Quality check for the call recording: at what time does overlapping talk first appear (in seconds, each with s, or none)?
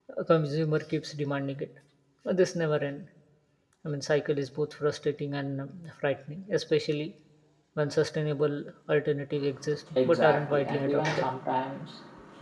10.1 s